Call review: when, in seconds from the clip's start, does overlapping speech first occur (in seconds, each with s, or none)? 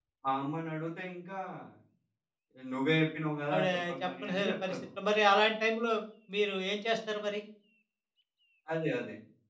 3.5 s